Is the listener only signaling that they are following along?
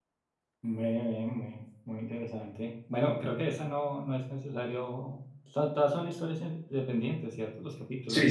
No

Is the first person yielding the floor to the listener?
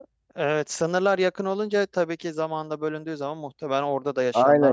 Yes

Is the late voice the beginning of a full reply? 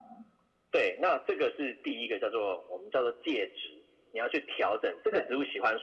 No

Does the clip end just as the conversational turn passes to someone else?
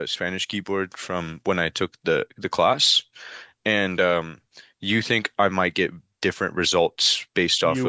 Yes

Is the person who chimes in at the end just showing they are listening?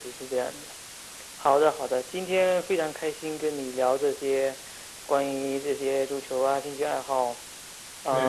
No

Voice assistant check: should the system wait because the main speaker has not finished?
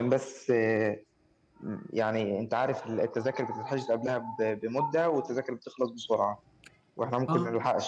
Yes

